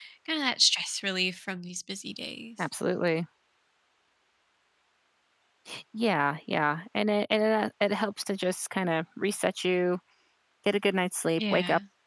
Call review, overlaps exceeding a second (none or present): none